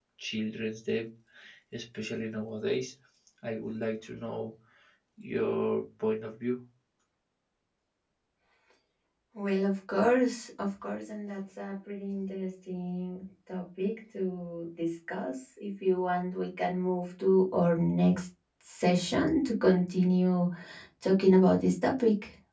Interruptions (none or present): none